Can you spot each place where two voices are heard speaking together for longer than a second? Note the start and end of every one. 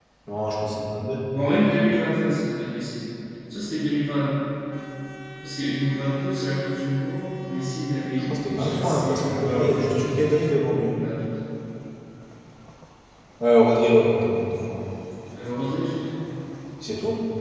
8.2-10.7

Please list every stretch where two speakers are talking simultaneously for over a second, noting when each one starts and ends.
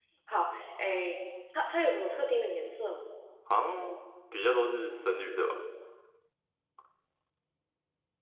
none

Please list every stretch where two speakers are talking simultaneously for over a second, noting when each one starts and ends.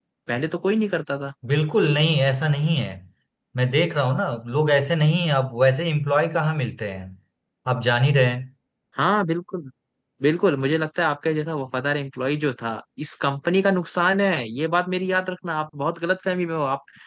none

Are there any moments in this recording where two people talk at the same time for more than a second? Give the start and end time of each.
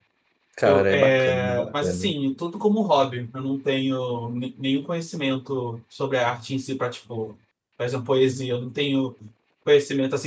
0.6-2.1

